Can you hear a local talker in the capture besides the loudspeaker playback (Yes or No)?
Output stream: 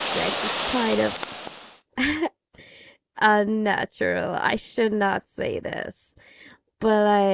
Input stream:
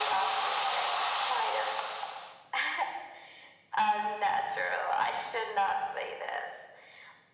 No